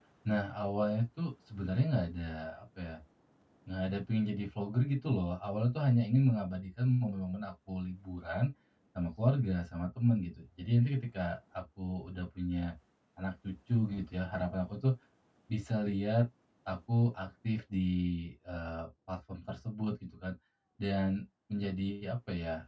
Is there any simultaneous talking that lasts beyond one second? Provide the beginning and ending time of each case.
none

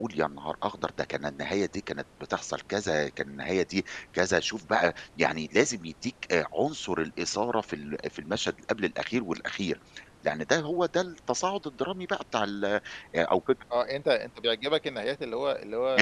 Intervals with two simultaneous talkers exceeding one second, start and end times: none

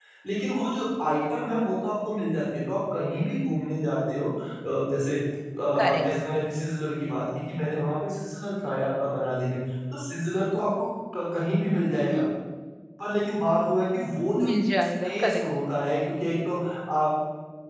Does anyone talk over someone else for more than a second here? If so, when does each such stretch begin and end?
none

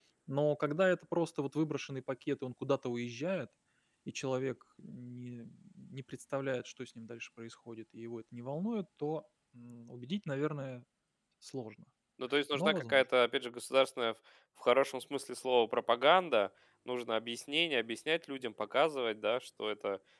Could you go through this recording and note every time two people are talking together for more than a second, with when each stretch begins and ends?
none

